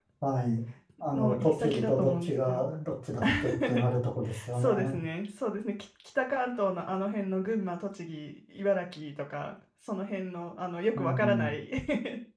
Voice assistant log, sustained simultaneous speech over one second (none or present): present